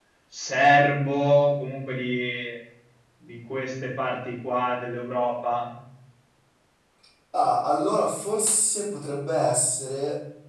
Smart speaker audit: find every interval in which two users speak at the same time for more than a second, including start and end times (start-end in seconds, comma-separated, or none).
none